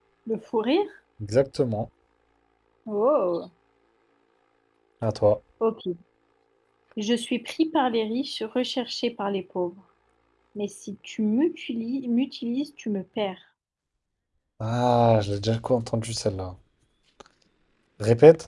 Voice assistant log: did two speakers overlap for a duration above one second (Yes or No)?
No